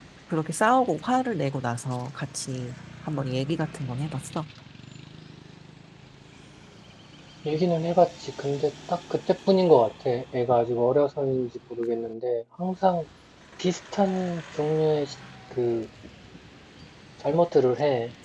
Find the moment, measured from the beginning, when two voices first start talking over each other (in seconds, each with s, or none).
none